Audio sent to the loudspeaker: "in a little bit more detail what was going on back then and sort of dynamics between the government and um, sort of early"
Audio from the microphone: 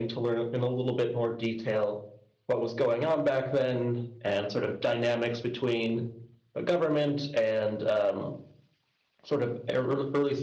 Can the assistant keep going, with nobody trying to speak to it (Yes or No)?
Yes